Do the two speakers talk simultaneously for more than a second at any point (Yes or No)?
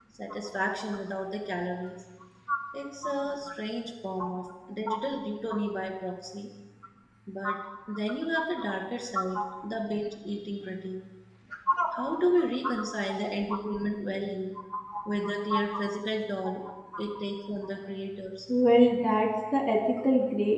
No